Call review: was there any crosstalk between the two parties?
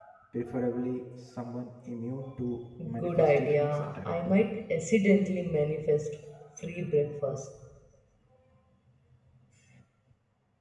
Yes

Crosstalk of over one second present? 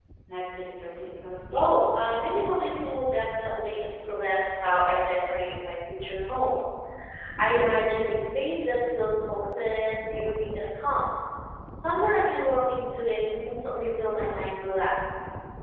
No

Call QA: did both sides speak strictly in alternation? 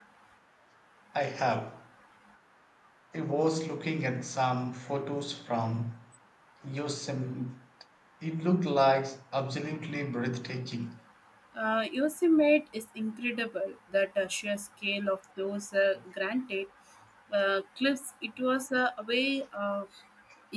Yes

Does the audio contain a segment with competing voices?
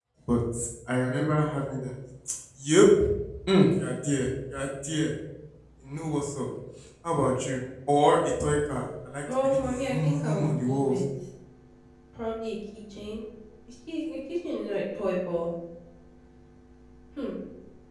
Yes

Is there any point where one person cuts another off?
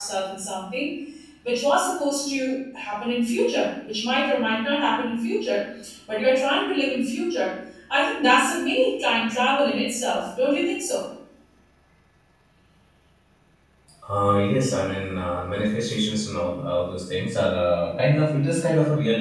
No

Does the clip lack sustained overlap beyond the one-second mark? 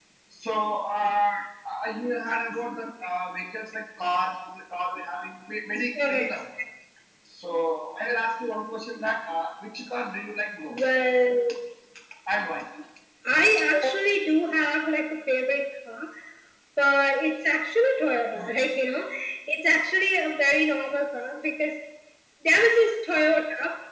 Yes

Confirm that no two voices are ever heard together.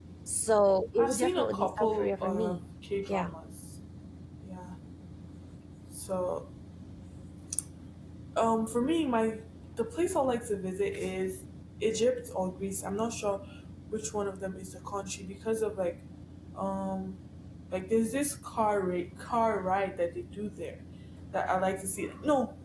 No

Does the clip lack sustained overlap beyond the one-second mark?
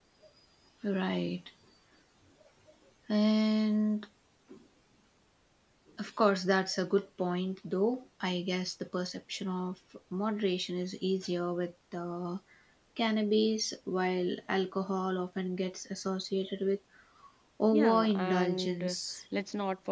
No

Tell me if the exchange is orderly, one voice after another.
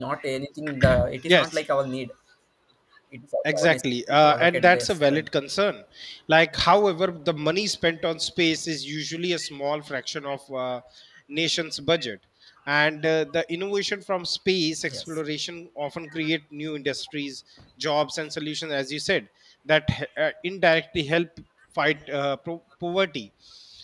No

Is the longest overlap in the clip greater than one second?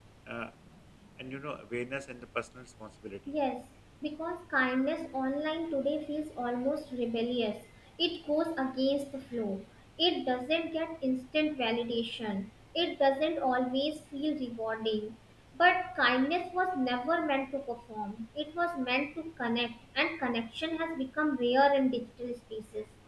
No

